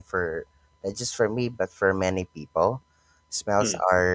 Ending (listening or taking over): listening